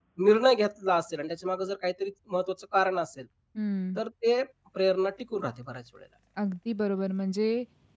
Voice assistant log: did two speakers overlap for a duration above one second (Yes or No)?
No